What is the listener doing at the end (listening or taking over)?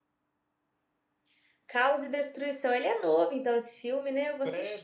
taking over